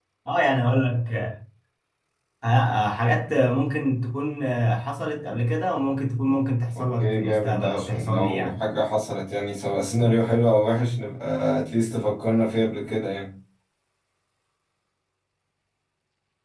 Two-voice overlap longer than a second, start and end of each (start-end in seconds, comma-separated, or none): 6.8-8.6